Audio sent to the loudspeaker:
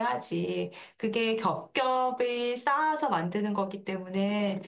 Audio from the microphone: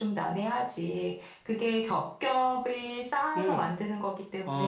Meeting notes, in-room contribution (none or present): present